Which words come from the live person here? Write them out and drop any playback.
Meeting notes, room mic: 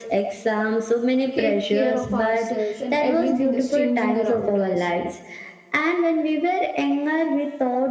take care of ourselves and everything is changing around us

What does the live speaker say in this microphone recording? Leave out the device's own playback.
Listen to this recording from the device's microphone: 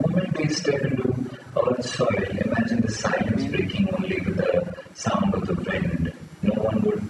bend

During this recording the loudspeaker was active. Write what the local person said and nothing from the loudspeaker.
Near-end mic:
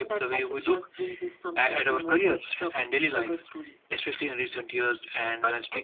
none

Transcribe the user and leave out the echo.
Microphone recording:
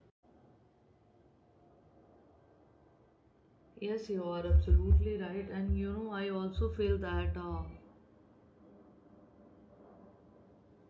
yes you are absolutely right and you know i also feel that uh,

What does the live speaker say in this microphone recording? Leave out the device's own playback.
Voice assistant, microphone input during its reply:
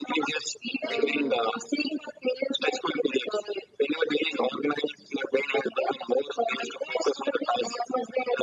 uh,

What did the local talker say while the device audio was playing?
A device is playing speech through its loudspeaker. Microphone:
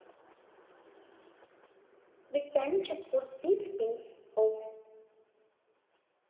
We tend to put these things off

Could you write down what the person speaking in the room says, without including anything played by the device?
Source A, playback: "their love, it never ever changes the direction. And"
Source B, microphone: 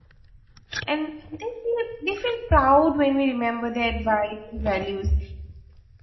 And they feel they feel proud when we remember their advice and values.

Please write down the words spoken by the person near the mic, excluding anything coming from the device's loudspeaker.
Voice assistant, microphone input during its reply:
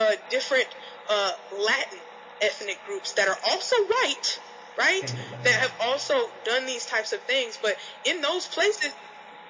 skin complexion wise.

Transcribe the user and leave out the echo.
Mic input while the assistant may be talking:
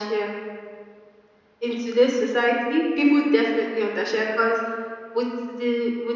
none

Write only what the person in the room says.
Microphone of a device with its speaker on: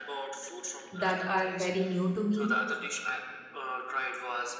that are very new to me,

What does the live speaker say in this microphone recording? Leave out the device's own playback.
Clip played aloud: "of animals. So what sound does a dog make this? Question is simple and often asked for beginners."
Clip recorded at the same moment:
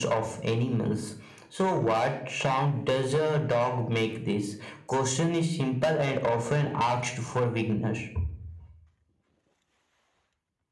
none

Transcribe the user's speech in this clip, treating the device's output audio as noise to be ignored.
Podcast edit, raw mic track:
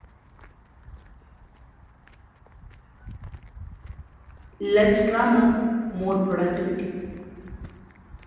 less drama, more productivity.

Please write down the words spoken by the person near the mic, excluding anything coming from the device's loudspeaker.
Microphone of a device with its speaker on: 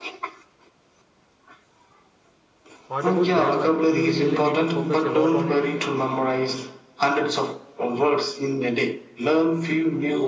What about grammar? Do we really need to focus a lot on it?

